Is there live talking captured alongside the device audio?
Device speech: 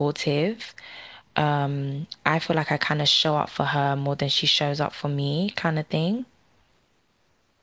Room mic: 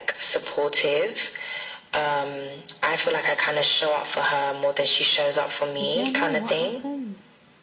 Yes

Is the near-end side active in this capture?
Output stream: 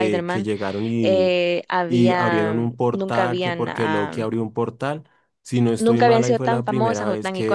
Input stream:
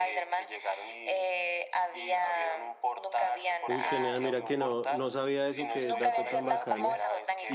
Yes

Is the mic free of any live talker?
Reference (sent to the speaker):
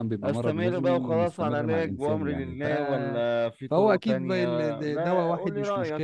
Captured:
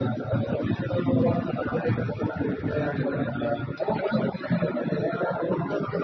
Yes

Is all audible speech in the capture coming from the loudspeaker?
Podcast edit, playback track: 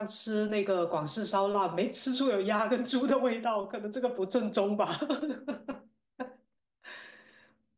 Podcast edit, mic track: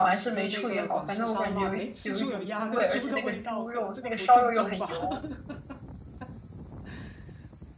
No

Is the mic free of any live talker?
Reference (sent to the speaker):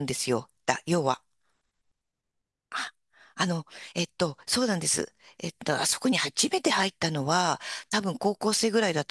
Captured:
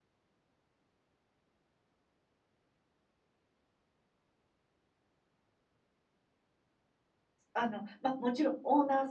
No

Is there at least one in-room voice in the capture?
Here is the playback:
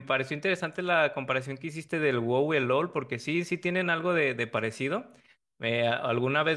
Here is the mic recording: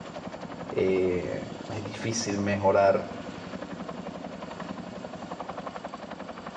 Yes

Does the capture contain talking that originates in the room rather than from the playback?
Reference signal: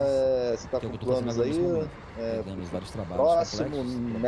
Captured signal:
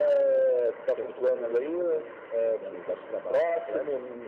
No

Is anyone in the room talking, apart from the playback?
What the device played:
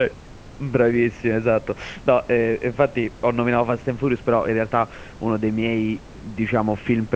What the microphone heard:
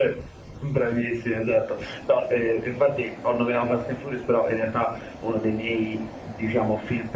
No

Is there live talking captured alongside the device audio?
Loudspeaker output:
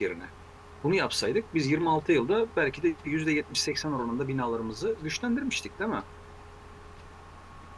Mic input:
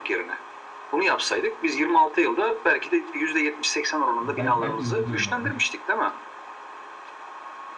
Yes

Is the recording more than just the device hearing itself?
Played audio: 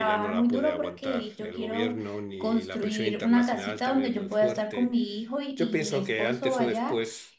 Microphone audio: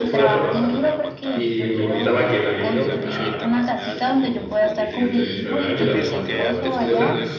Yes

